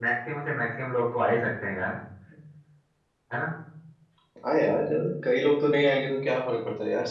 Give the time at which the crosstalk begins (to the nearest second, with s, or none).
none